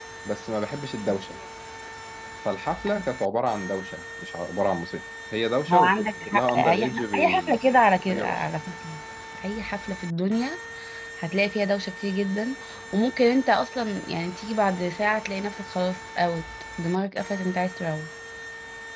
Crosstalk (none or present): present